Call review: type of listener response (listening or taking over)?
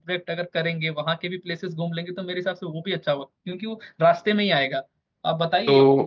listening